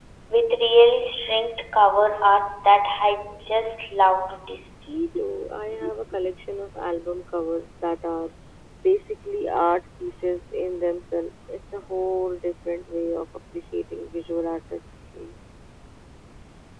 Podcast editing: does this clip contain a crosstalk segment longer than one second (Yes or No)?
No